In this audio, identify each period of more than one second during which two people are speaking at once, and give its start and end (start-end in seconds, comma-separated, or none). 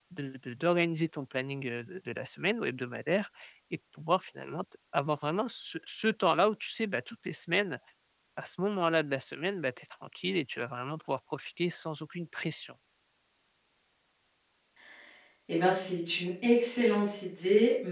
none